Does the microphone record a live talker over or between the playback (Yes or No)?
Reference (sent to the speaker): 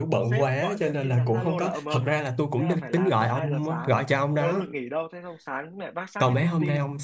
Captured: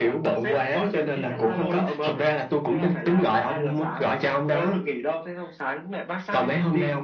No